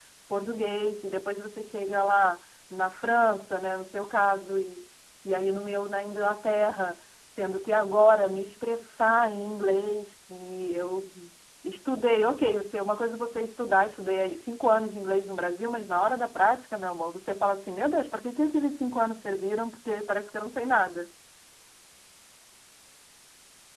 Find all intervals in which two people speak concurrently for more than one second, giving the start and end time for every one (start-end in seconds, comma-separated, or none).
none